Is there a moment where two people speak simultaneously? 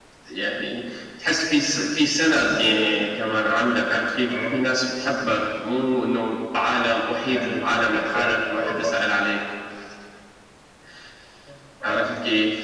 Yes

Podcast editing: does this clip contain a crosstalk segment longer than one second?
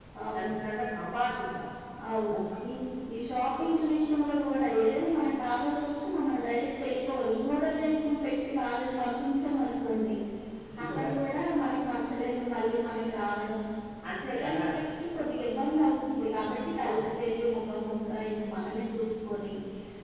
No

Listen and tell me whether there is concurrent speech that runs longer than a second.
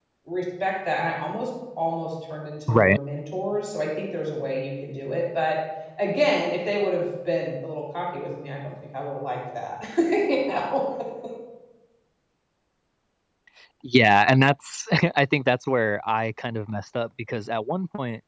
No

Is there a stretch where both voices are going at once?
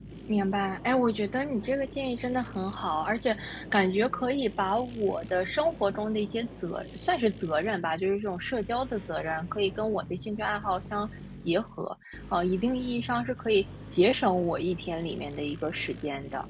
No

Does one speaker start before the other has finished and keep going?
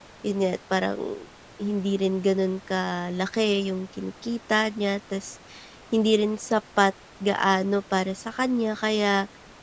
No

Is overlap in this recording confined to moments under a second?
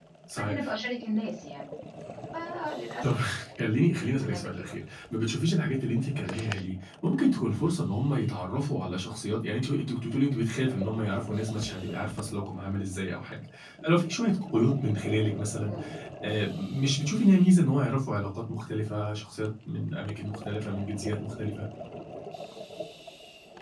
Yes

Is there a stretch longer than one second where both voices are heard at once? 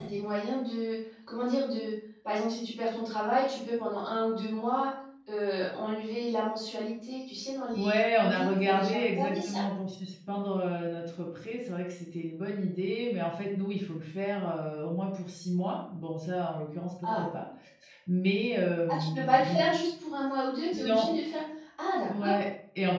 Yes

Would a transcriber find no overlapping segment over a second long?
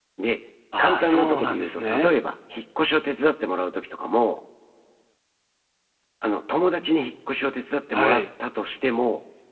No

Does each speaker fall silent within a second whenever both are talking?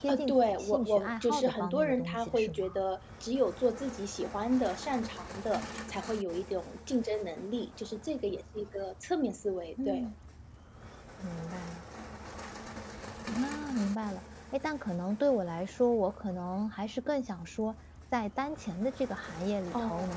No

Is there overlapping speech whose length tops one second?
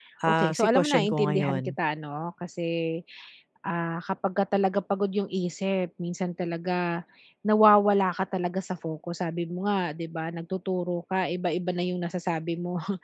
Yes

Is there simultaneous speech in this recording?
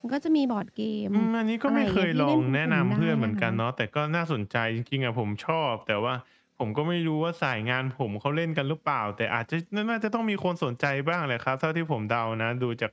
Yes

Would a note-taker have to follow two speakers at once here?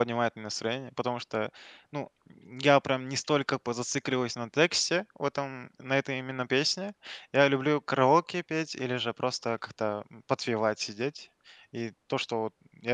No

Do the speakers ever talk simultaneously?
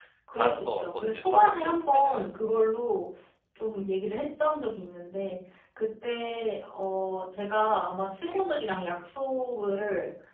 Yes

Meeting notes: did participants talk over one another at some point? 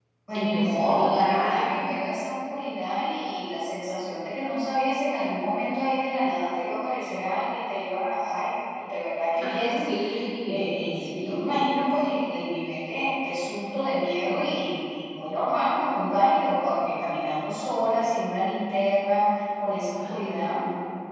Yes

